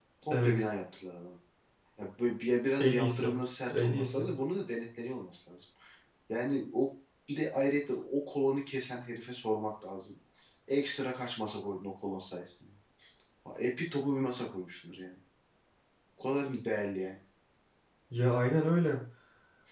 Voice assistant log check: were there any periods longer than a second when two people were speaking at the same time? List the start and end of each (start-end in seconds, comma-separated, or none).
none